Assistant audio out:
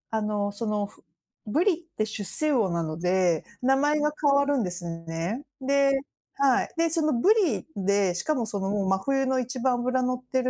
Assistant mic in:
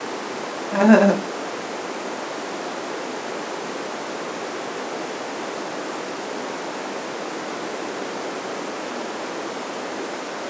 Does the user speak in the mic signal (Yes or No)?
Yes